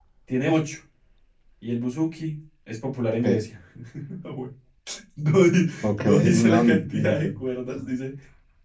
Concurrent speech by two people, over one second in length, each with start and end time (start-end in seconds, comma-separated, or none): 5.8-7.3